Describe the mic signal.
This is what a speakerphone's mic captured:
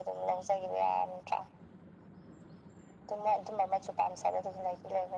echo only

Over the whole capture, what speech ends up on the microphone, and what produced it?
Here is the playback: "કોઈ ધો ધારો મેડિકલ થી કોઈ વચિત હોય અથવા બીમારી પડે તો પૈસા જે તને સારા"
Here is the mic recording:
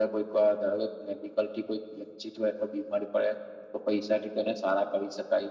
echo only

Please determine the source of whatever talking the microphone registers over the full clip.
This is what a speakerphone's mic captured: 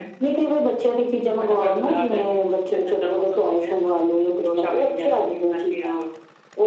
echo only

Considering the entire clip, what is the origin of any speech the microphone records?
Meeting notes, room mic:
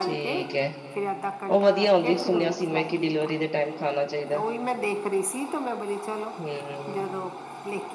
both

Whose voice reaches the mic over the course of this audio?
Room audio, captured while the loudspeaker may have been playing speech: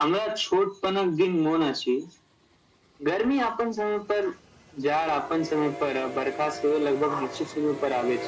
echo only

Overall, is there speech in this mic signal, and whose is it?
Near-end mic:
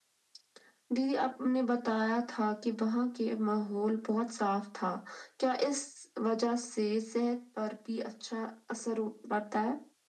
echo only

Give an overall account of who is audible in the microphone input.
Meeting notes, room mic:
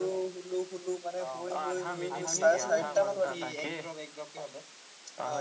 both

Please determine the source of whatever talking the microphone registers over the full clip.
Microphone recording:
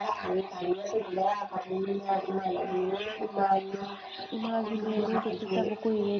both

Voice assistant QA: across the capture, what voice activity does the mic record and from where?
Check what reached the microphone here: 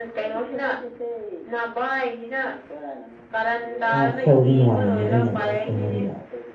both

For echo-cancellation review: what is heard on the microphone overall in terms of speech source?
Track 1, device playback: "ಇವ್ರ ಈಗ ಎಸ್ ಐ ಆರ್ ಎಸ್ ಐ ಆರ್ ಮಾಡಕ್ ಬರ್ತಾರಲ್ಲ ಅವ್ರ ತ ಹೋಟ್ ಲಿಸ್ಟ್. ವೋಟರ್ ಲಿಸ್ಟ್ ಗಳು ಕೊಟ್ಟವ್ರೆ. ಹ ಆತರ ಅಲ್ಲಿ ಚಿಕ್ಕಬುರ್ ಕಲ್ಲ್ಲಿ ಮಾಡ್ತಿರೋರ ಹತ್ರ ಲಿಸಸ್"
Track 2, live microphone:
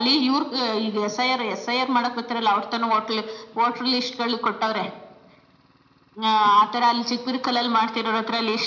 echo only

